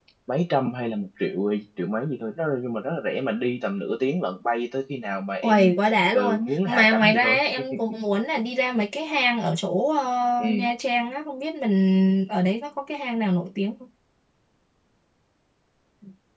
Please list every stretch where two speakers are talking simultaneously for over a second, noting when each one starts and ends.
6.1-7.4

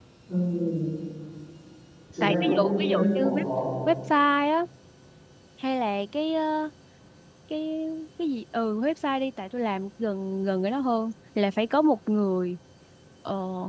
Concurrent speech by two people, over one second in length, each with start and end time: 2.2-3.4

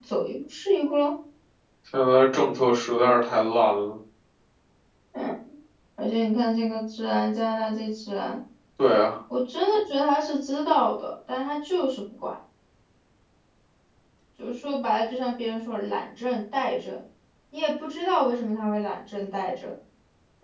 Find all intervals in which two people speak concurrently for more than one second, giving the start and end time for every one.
none

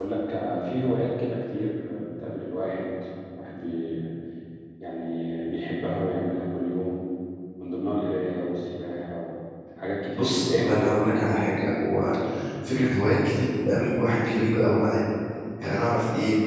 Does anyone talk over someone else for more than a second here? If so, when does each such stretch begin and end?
10.1-11.3

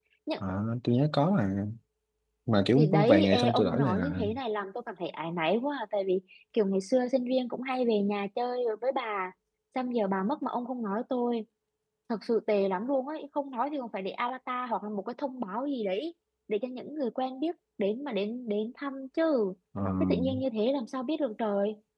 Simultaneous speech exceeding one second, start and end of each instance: 2.8-4.2

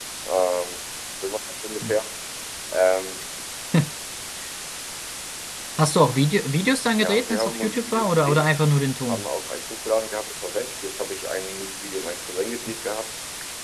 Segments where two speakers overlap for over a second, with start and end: 7.0-8.5

